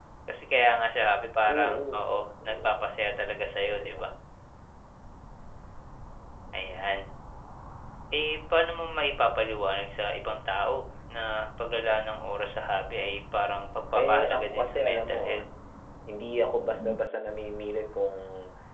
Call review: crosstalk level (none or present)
present